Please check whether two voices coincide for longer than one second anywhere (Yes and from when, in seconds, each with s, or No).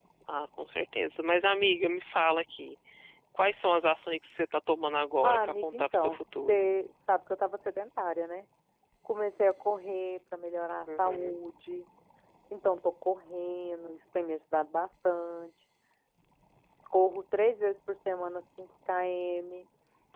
Yes, from 5.2 s